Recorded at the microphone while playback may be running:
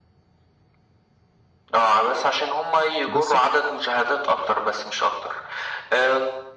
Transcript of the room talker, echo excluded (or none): بالضبط.